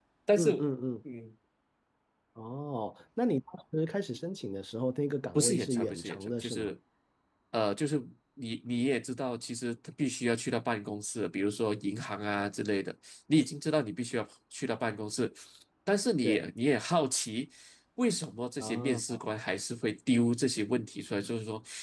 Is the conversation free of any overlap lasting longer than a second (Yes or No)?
No